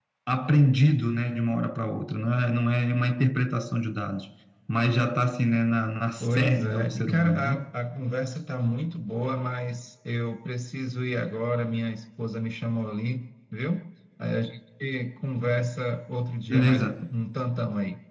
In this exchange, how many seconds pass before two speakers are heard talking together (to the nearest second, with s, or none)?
6 s